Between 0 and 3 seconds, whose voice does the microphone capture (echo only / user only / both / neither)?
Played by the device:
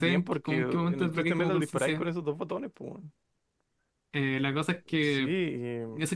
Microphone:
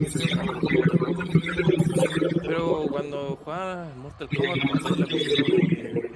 both